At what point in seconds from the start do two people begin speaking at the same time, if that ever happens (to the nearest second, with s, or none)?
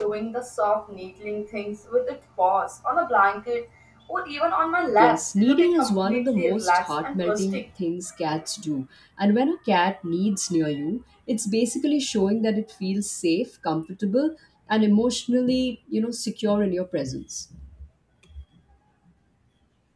5 s